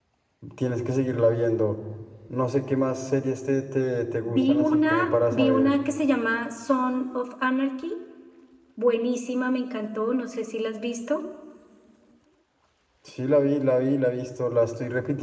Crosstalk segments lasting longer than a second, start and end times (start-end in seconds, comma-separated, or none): 4.4-5.8